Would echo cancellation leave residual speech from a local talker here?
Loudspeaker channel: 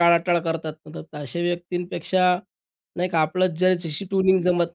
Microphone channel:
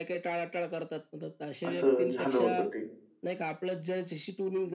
Yes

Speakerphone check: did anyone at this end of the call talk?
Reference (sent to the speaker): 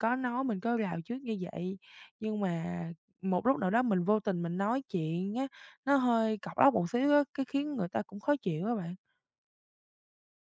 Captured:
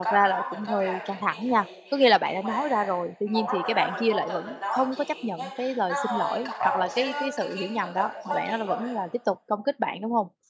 Yes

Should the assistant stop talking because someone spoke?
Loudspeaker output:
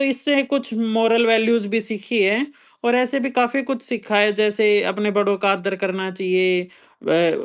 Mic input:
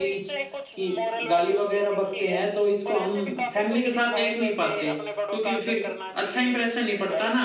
Yes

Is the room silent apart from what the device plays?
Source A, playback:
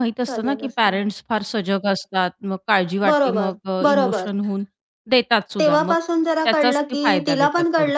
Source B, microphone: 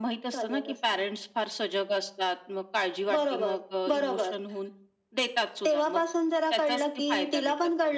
Yes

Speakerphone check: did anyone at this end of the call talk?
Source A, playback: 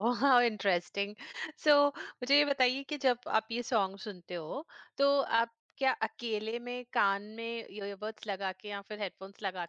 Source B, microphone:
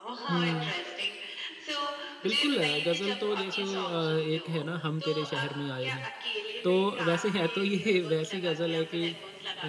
Yes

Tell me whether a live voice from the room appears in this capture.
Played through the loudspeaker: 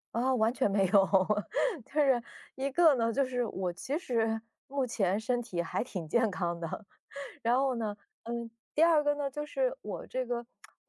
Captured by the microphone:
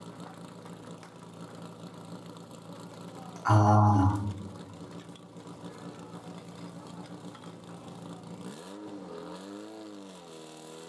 Yes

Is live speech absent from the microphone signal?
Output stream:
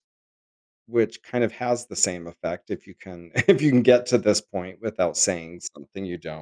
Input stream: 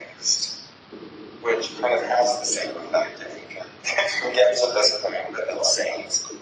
Yes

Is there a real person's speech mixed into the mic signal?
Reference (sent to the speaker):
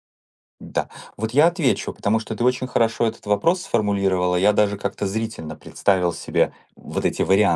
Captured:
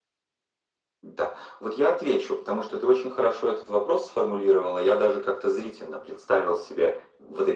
No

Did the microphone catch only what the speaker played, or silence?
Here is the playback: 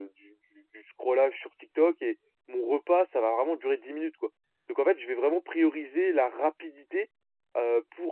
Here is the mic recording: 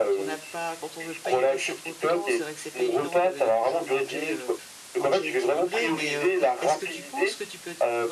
No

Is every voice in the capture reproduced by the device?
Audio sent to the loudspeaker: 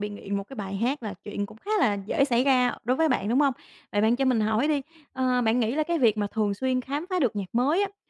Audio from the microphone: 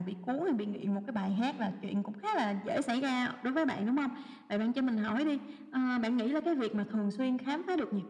Yes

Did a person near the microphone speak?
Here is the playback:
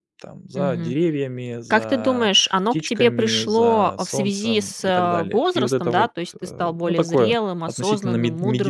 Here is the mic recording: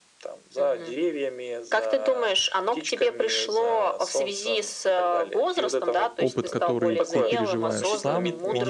Yes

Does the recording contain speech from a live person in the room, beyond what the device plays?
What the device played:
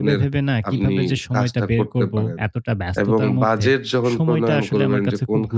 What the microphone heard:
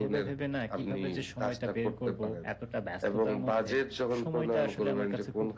No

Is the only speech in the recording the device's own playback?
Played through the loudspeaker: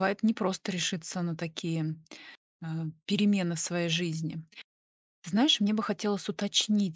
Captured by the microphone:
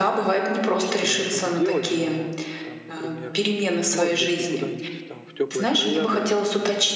No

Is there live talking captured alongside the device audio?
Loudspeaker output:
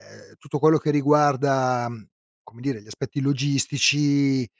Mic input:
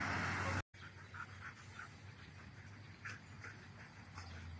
No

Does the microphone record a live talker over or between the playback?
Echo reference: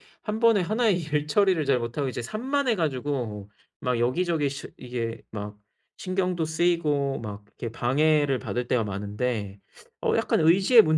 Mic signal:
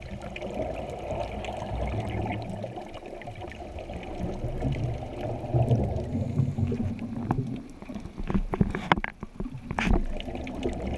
No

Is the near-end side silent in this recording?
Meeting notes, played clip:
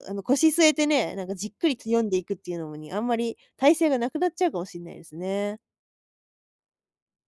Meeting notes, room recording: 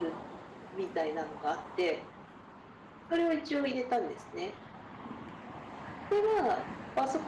No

